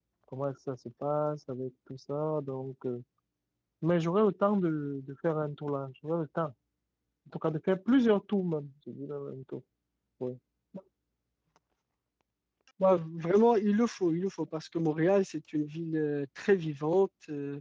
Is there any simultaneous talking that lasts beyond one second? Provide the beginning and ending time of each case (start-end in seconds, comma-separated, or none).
none